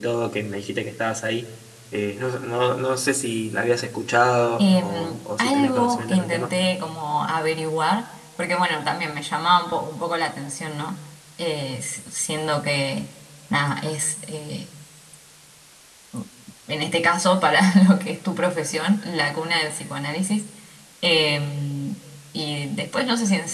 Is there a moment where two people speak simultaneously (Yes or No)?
Yes